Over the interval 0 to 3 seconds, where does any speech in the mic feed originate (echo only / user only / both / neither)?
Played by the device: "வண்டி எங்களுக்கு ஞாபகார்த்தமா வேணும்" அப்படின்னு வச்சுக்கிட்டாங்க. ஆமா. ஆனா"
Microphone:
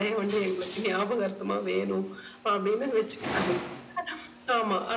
echo only